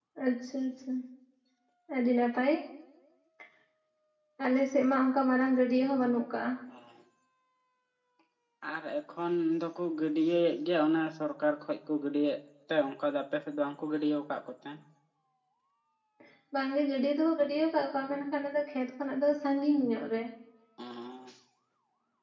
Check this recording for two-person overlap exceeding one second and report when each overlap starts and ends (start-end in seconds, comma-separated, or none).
none